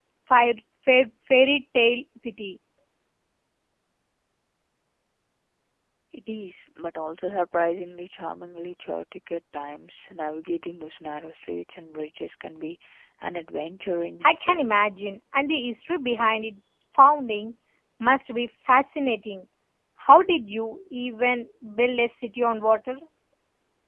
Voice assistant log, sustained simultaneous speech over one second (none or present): none